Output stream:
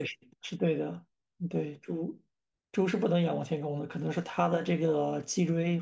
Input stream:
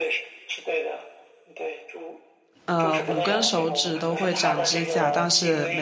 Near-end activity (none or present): present